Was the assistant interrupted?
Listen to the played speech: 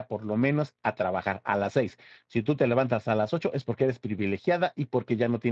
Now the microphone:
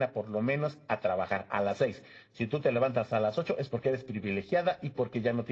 No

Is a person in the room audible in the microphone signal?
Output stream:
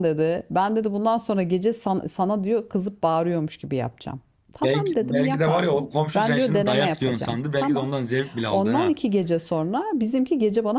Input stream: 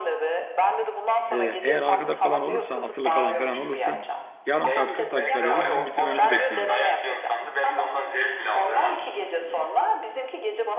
Yes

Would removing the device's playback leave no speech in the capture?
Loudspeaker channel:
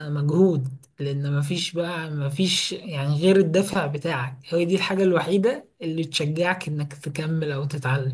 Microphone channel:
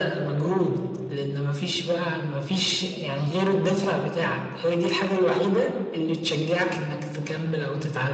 Yes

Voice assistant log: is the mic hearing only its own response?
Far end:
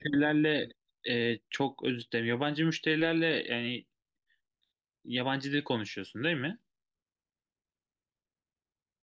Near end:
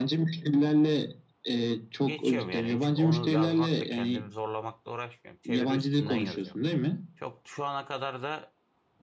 No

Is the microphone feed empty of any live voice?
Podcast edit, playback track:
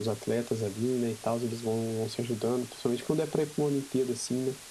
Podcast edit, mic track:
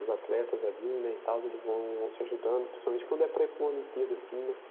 Yes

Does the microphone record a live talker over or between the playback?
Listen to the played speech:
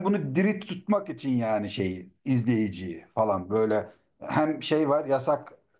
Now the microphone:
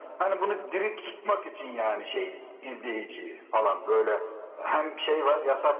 No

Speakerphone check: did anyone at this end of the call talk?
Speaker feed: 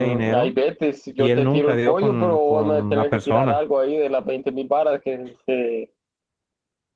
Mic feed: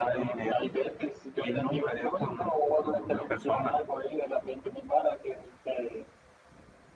No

